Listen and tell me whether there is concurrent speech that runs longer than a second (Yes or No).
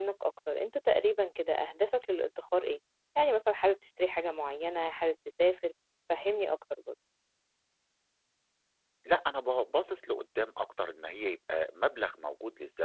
No